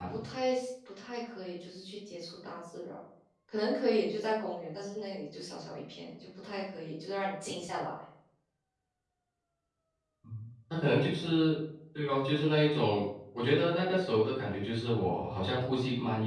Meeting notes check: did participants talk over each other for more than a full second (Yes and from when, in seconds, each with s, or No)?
No